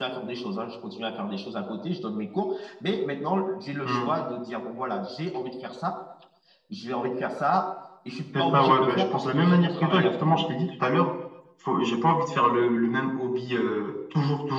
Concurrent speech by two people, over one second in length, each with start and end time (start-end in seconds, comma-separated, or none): 8.4-10.4